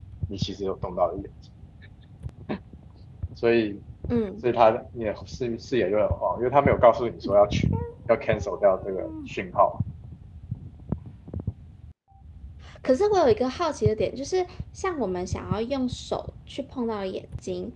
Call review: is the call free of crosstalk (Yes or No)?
Yes